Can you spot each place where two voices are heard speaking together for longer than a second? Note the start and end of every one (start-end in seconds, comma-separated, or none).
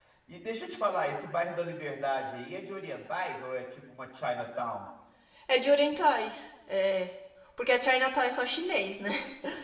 none